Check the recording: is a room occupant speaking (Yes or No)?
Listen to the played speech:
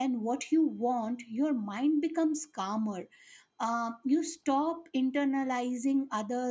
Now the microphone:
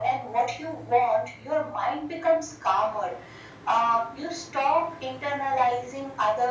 No